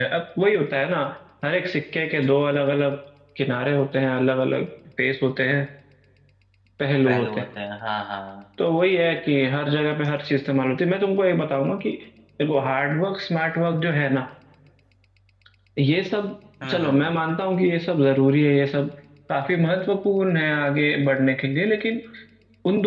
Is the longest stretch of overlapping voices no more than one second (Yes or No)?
Yes